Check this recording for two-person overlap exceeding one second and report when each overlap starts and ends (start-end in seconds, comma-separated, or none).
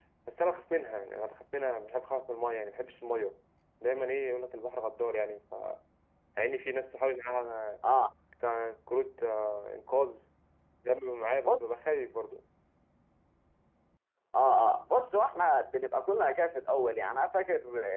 none